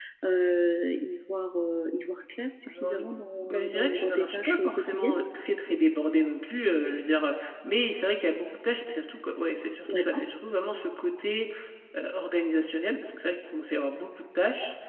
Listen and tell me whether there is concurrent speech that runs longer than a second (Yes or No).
Yes